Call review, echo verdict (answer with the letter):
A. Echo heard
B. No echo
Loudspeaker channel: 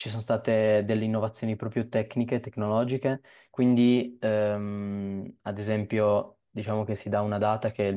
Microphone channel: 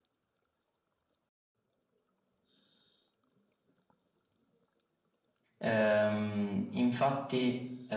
B